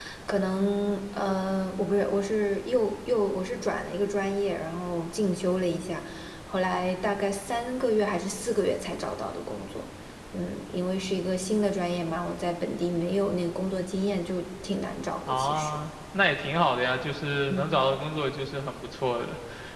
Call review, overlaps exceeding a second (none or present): none